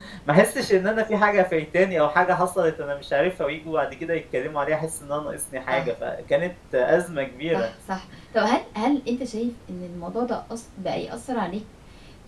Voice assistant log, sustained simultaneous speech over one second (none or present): none